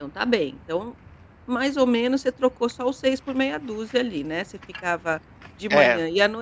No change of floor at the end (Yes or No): Yes